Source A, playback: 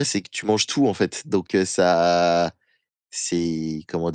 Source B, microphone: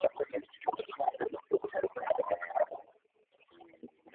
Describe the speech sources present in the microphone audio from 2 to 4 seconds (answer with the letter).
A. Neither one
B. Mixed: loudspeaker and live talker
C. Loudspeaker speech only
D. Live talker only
C